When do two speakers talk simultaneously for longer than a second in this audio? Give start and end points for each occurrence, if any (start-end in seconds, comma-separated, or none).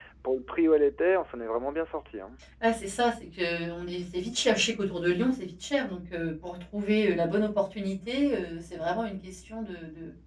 none